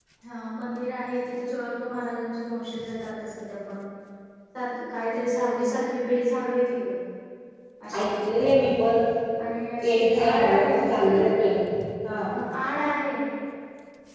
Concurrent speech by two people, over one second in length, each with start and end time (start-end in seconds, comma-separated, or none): 9.8-11.1